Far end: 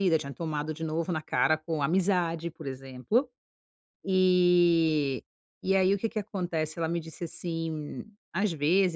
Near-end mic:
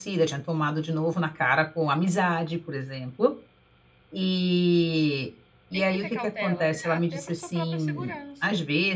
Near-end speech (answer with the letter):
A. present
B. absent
A